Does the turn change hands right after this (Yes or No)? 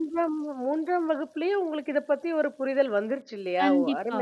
Yes